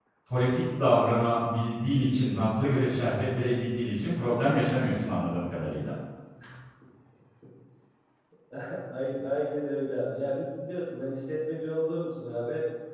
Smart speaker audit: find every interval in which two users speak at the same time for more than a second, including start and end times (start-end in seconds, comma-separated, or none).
none